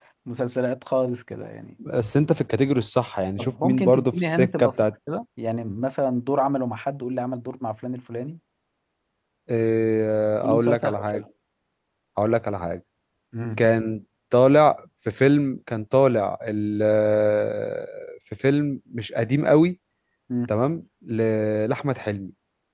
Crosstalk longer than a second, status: present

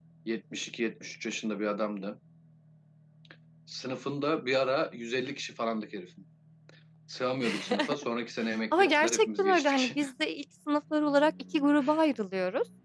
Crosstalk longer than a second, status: present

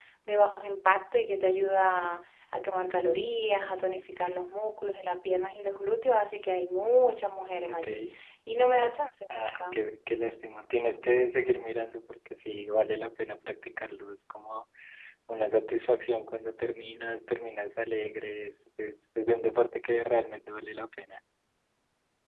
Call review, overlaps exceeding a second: none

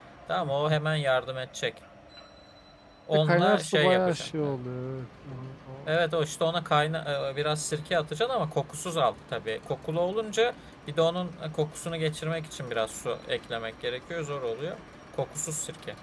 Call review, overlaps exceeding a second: present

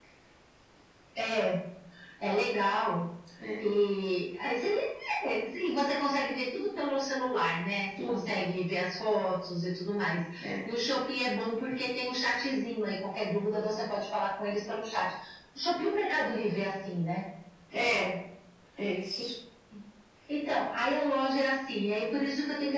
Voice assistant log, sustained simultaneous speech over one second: none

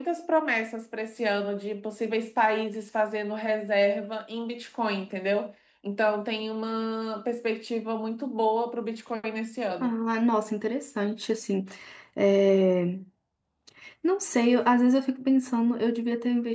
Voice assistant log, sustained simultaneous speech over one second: none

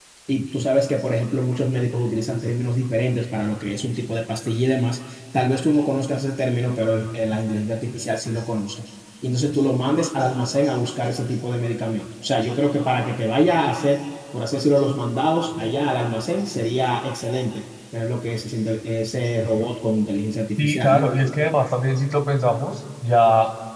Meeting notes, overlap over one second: none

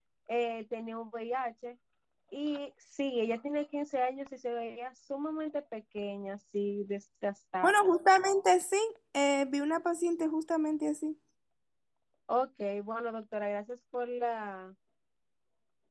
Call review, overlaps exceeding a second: none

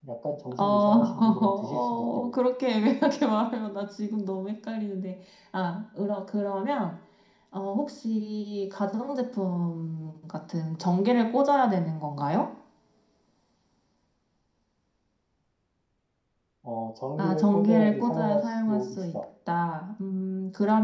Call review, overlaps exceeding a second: present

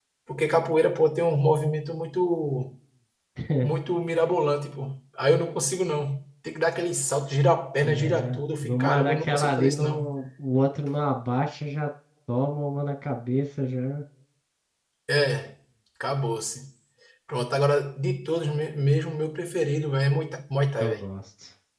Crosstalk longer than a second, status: present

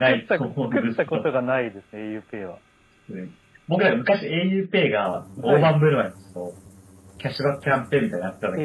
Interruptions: present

